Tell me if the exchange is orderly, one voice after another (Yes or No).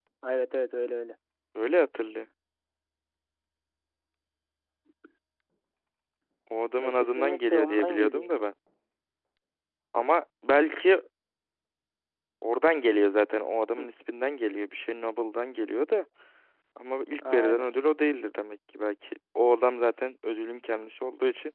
No